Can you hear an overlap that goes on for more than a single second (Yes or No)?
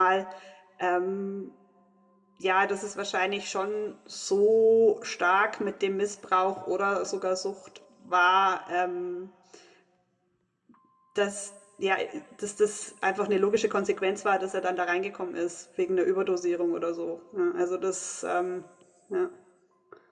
No